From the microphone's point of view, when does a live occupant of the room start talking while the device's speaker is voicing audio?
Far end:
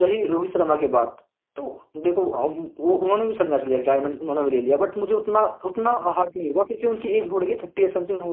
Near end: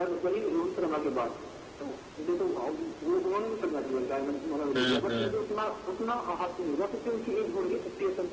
4.7 s

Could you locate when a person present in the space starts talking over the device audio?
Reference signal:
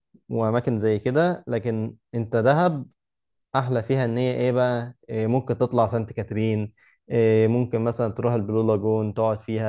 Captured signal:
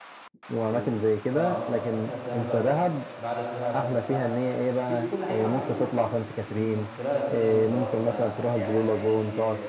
0.7 s

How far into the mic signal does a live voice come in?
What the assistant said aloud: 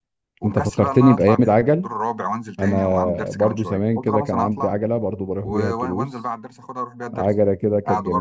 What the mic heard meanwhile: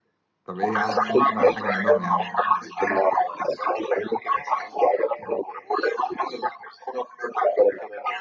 0.4 s

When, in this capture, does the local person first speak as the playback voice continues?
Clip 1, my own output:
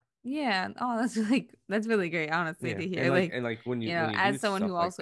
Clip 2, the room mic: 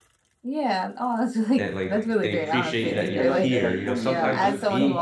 1.6 s

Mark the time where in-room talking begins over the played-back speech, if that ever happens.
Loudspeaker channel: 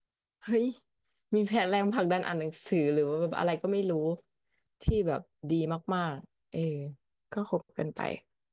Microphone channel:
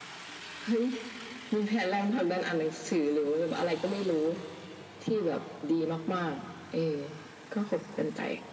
none

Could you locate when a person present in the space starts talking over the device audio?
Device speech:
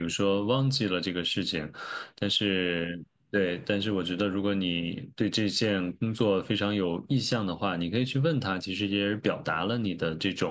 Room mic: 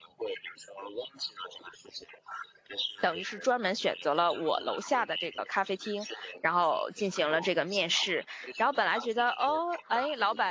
3.0 s

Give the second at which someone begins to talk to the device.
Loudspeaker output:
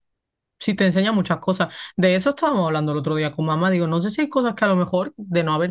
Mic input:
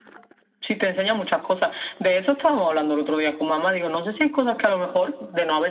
none

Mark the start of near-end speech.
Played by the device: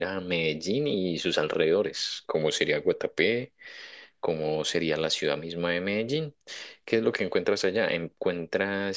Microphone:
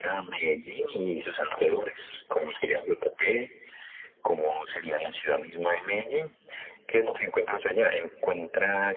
none

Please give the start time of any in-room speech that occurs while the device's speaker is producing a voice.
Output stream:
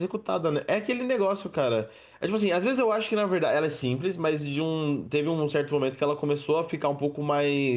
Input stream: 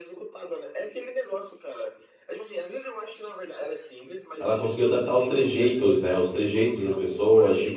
4.4 s

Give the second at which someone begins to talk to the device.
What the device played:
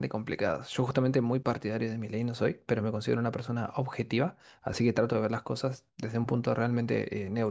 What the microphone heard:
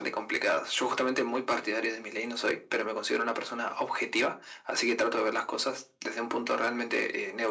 none

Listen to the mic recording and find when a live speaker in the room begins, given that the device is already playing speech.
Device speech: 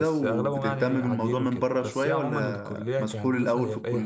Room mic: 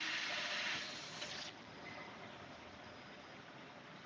none

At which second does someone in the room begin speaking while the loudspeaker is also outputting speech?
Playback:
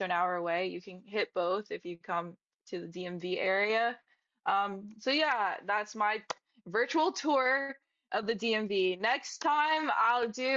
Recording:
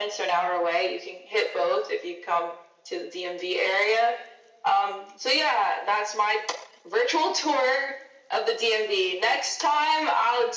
none

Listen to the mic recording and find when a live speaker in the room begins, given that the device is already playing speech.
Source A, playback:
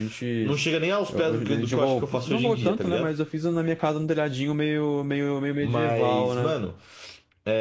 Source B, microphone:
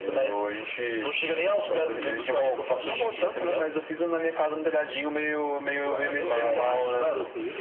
5.8 s

